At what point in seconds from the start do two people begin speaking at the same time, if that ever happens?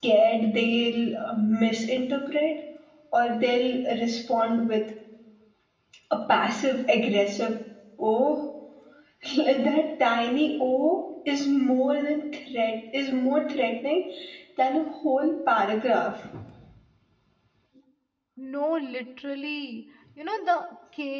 none

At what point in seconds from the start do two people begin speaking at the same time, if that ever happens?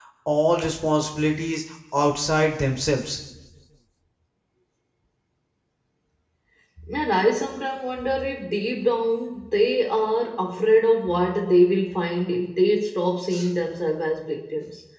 none

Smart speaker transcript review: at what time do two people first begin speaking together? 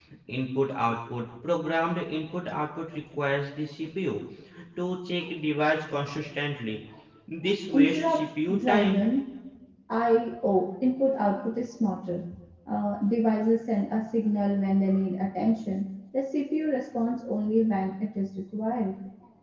7.7 s

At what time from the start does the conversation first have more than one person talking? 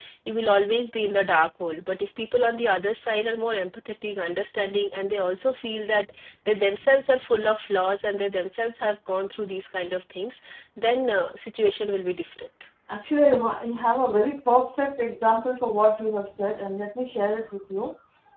none

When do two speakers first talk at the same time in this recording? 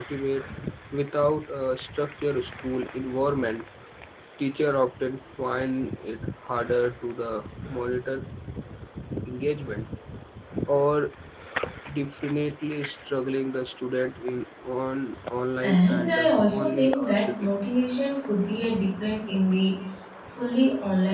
15.6 s

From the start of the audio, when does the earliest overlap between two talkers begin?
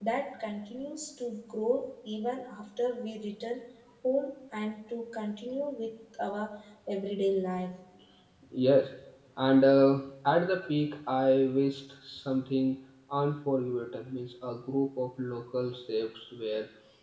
none

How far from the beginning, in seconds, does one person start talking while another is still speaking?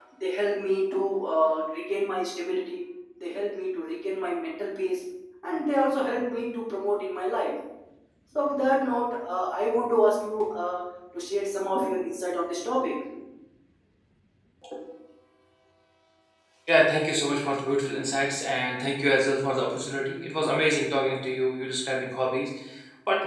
none

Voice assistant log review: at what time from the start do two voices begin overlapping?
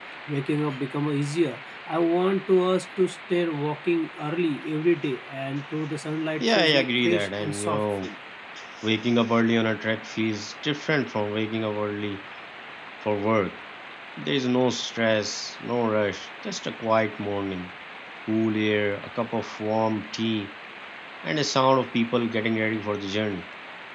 6.4 s

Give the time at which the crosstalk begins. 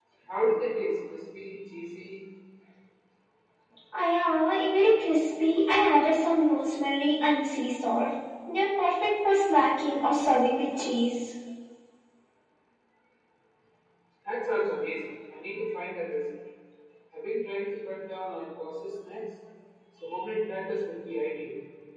none

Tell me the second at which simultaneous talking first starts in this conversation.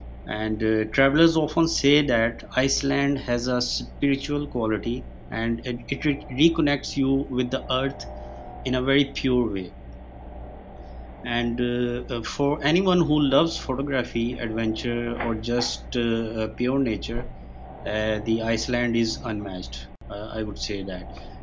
none

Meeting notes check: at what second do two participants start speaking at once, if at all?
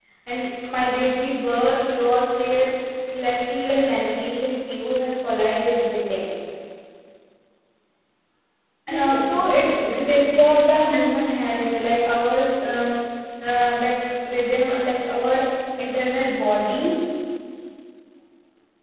8.9 s

